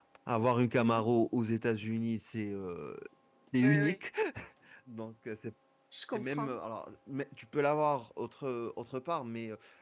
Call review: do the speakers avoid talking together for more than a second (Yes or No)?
Yes